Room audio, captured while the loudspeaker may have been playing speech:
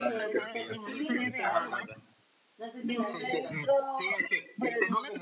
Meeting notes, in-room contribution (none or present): present